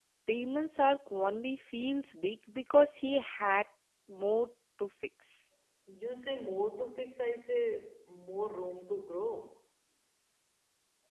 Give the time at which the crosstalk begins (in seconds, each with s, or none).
none